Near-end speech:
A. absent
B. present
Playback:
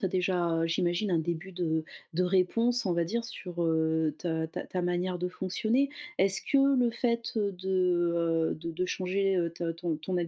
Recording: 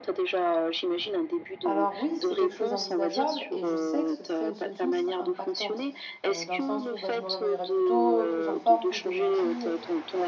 B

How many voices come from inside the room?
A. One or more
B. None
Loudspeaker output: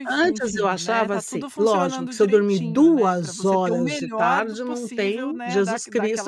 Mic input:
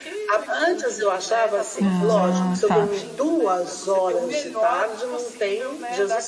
A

